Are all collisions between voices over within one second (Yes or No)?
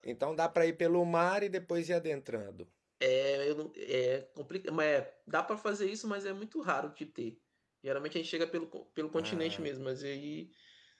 Yes